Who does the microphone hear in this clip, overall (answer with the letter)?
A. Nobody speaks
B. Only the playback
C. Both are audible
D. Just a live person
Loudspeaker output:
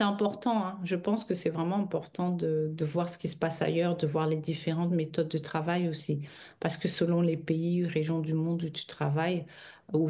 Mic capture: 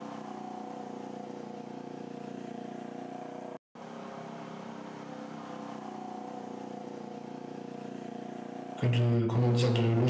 D